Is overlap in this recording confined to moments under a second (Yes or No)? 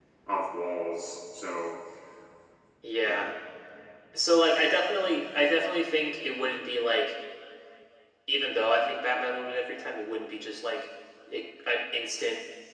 Yes